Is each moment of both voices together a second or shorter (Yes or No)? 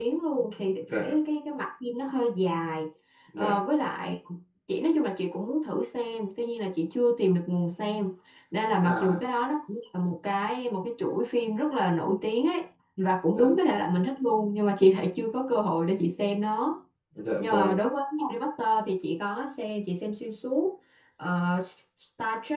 Yes